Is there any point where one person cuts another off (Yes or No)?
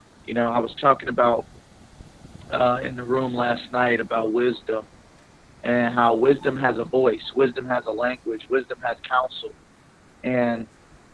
No